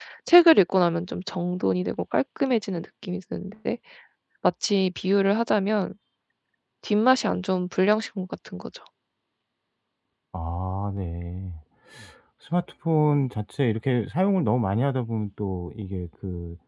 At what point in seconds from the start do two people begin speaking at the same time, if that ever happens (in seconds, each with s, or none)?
none